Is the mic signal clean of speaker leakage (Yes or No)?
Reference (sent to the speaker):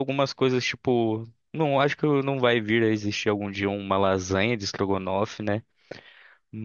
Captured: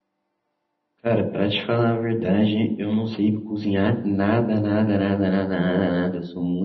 Yes